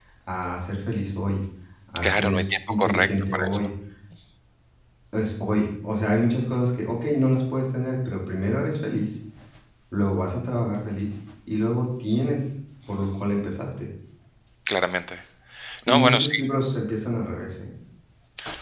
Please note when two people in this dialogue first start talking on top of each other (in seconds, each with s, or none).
2.0 s